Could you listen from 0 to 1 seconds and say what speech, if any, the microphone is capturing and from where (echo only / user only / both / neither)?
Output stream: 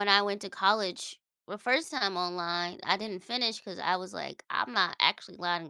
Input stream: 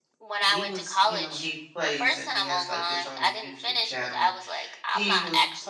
both